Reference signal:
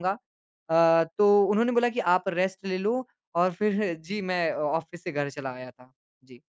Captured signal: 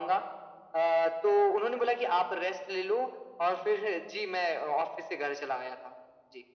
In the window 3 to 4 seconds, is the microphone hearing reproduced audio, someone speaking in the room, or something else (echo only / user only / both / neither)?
echo only